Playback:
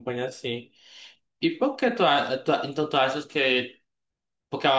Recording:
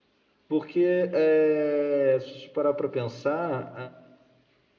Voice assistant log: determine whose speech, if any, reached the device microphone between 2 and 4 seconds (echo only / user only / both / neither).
user only